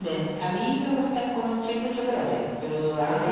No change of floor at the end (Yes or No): Yes